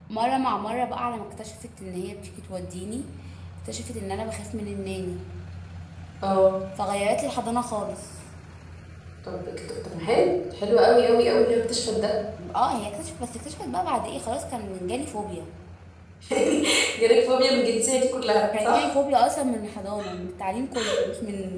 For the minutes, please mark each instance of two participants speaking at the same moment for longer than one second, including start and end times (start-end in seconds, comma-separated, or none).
none